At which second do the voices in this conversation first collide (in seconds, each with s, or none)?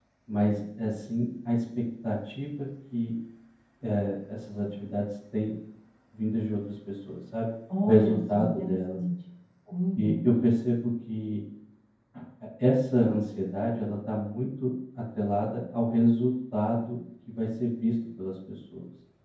7.8 s